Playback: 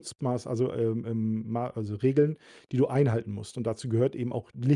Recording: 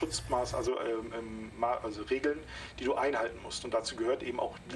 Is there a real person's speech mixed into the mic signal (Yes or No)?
No